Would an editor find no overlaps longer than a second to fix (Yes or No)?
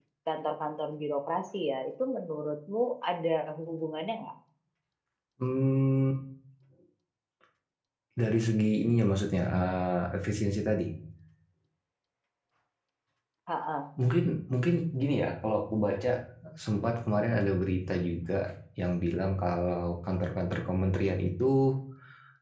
Yes